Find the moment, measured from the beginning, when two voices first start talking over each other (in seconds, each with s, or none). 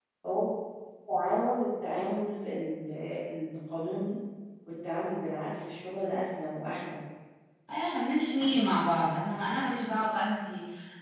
none